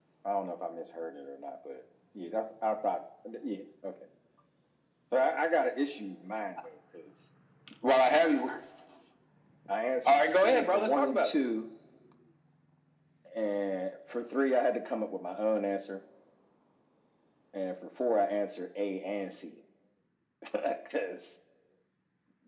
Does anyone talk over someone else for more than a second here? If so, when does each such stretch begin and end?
10.1-11.3

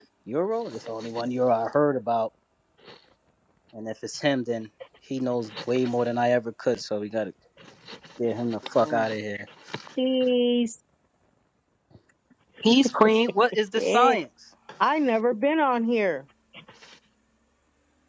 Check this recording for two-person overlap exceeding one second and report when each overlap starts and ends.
none

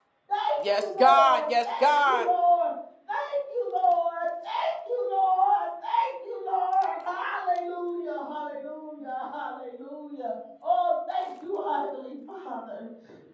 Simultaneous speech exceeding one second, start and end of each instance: 0.7-2.3

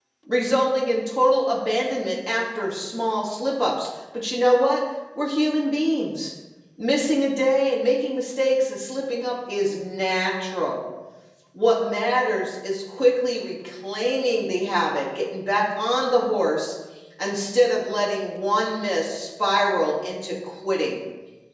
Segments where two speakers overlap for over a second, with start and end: none

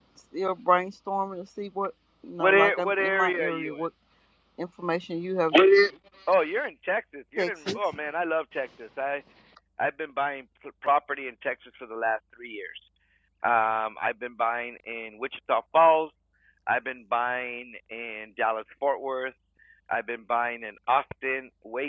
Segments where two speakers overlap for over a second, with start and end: 2.4-3.8

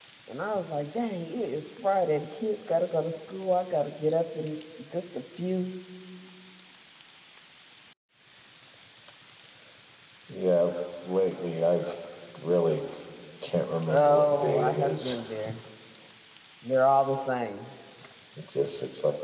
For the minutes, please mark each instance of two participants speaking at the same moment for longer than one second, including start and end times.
13.9-15.2

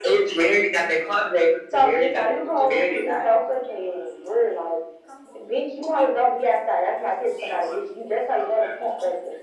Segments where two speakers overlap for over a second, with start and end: 1.7-3.1

